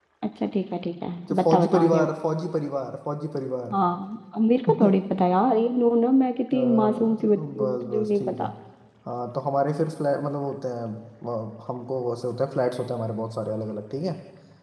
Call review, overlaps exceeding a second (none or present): present